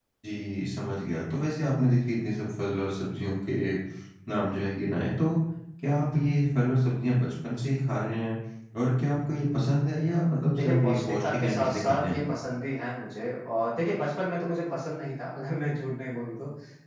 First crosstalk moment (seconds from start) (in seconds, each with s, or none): 10.5 s